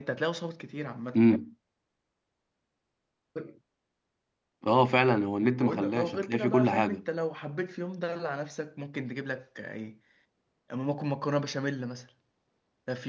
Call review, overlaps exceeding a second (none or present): present